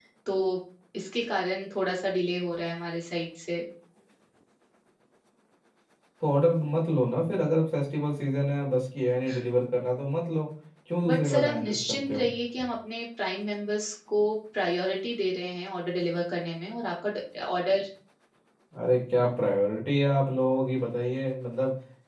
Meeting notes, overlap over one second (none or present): present